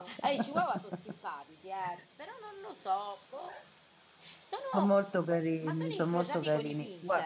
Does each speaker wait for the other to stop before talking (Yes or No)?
No